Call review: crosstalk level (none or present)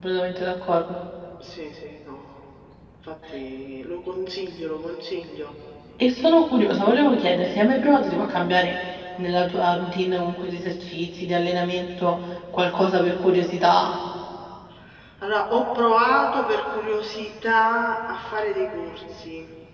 none